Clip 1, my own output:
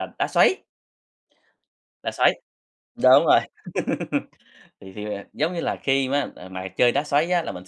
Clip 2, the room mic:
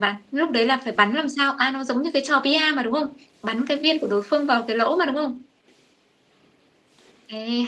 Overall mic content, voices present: user only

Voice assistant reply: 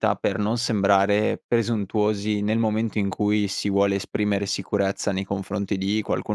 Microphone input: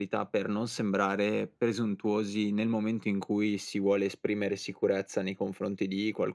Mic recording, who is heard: echo only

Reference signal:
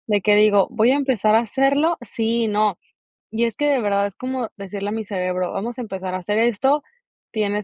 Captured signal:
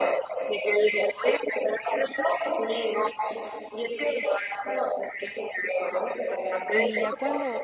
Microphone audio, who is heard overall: both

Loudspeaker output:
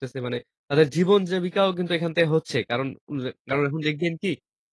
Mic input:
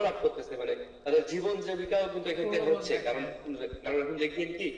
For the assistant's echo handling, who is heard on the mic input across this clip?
both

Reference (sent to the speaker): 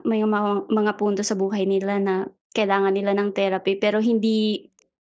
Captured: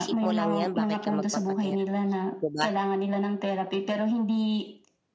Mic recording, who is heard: both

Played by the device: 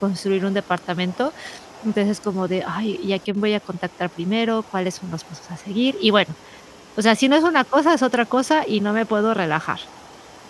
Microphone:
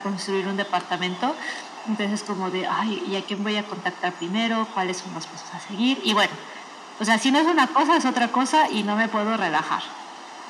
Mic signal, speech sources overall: echo only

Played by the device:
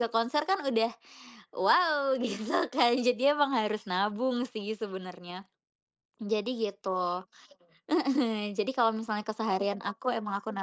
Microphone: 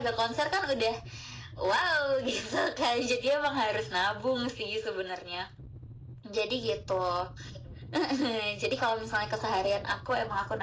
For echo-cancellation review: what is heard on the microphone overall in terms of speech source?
echo only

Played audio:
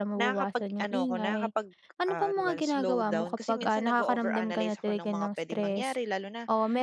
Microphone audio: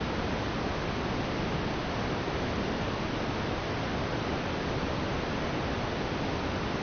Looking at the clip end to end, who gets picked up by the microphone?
neither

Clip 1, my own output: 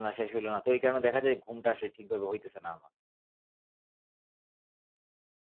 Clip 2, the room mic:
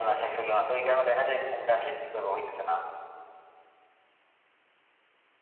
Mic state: echo only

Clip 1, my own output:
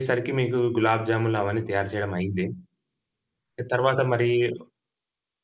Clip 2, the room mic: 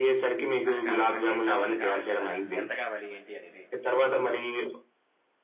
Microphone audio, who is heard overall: both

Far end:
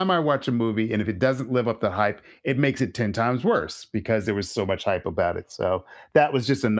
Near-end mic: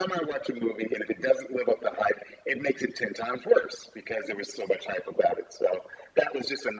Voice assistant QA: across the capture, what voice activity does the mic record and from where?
echo only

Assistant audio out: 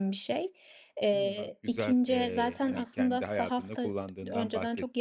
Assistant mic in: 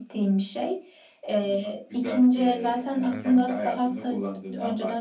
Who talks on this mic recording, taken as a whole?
both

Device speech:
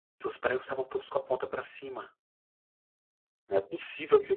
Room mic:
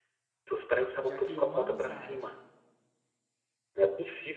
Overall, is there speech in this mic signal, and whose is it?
both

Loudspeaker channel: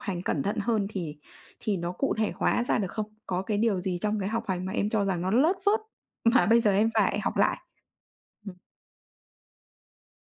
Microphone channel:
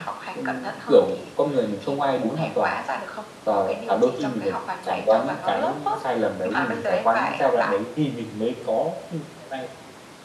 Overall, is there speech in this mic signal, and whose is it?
both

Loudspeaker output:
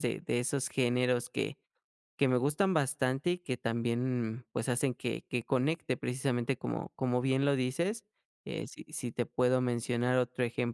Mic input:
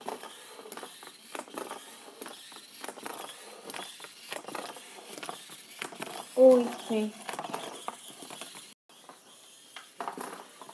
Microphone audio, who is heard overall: user only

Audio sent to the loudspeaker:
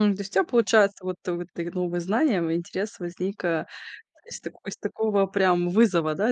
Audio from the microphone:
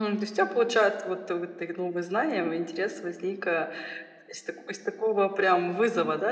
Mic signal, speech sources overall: echo only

